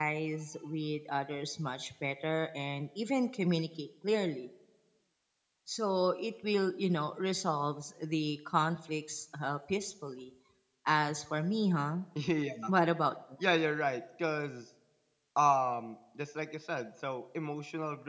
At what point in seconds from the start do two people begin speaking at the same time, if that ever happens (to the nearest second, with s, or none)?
none